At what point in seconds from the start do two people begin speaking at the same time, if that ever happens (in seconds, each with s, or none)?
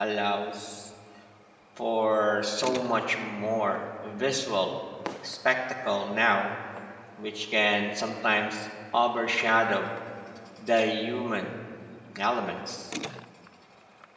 none